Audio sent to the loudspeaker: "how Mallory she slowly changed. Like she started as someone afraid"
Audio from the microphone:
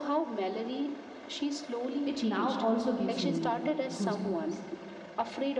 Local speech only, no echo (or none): it now also gives me goosebumps.